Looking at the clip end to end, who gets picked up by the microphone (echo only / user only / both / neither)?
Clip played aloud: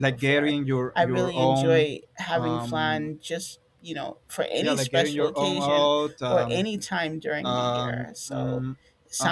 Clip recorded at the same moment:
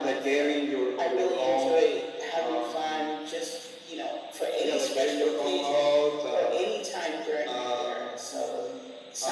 echo only